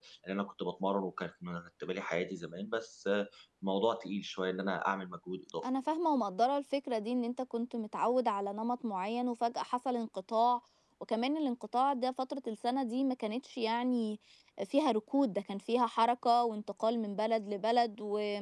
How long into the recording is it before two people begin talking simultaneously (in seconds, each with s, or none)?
none